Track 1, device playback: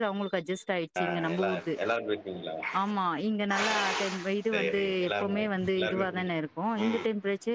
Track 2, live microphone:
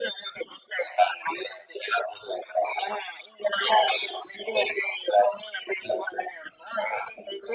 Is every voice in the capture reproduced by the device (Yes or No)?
Yes